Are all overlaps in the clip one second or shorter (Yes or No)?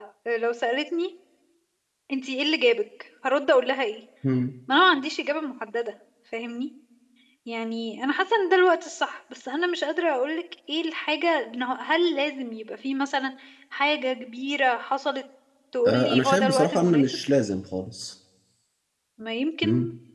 No